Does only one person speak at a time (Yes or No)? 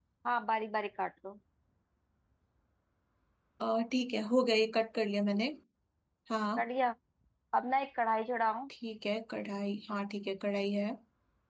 Yes